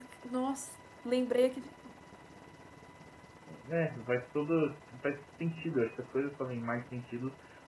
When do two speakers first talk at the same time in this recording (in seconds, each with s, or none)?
none